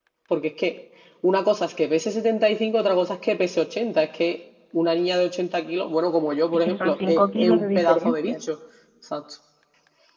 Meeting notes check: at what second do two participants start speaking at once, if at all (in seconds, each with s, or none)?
6.5 s